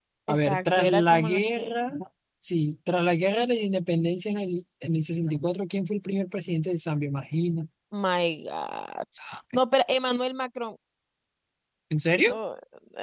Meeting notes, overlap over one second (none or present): present